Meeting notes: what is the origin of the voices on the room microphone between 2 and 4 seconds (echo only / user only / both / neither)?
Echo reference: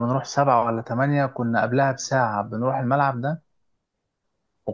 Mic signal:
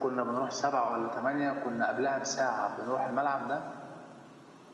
echo only